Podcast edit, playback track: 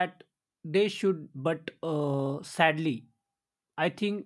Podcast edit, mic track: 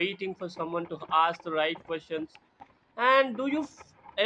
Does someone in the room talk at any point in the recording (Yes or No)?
Yes